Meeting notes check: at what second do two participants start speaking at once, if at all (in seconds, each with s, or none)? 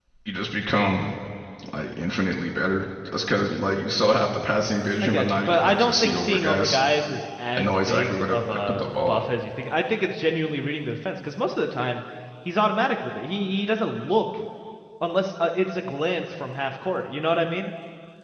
5.0 s